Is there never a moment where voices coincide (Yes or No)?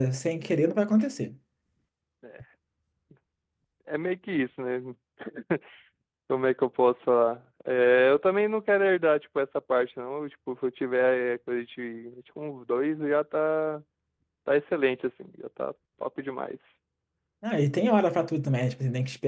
Yes